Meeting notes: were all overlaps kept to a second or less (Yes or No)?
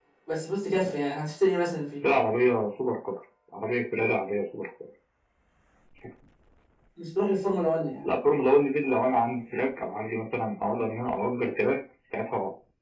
Yes